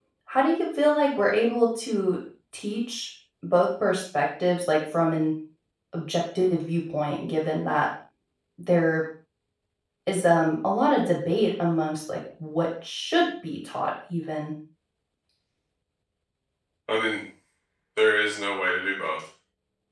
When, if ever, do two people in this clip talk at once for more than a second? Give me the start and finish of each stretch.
none

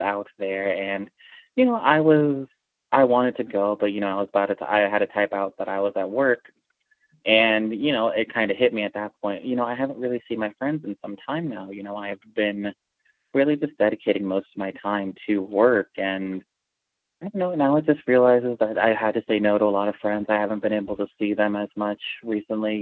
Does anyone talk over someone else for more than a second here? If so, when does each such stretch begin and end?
none

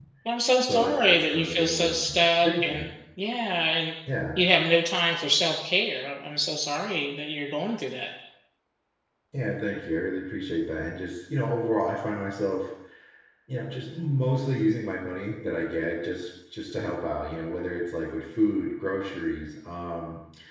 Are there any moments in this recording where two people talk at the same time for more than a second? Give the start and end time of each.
0.6-2.8

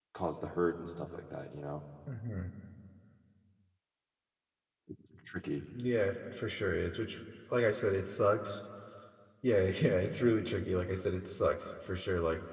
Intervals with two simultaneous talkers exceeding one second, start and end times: none

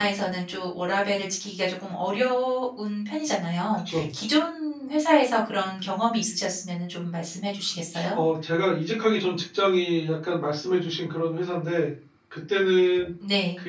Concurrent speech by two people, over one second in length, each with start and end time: none

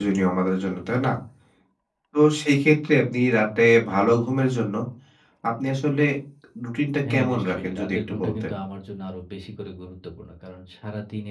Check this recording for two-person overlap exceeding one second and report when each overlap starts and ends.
7.1-8.5

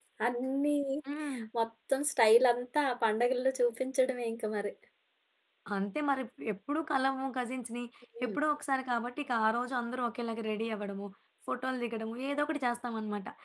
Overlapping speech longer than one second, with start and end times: none

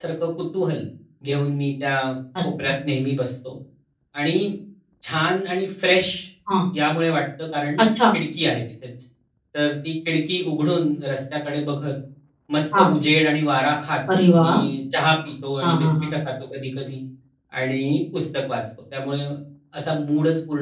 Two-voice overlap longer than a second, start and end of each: none

